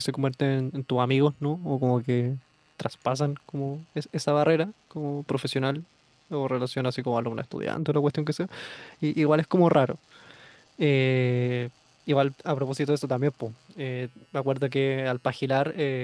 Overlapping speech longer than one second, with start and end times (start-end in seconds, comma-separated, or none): none